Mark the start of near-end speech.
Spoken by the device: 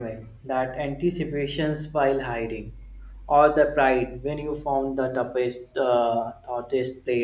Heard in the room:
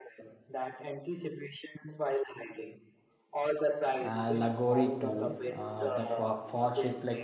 4 s

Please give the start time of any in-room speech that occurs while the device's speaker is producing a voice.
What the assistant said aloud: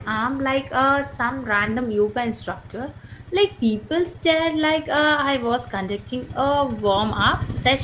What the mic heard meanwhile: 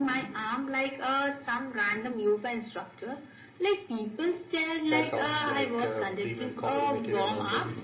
5 s

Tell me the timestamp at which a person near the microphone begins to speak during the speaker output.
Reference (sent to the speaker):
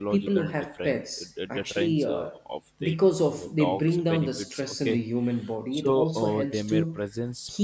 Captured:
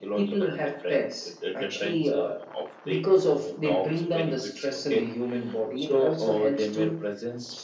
none

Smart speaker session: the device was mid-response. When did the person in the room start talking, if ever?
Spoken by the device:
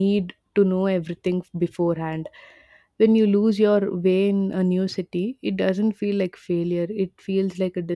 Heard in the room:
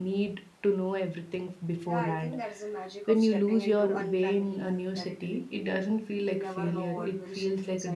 2 s

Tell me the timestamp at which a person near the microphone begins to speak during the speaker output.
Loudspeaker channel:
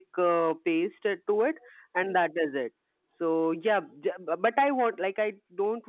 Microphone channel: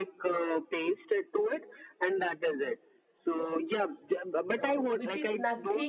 5 s

